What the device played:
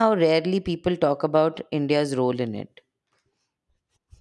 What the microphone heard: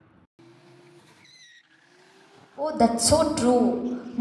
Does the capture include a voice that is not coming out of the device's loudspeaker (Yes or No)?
Yes